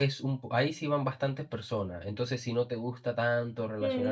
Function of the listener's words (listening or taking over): taking over